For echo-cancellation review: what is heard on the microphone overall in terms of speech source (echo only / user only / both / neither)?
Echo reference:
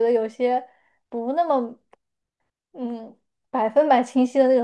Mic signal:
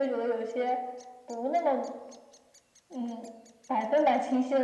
echo only